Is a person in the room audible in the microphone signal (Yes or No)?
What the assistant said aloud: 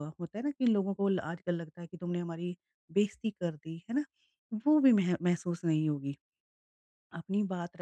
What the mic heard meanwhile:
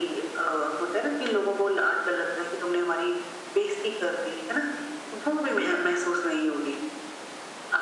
No